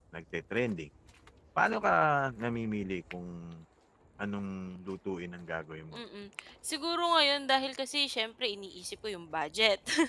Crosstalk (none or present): none